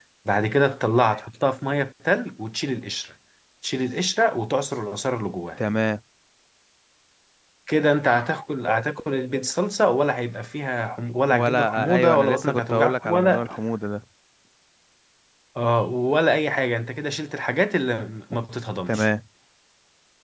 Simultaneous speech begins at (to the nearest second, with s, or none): 11 s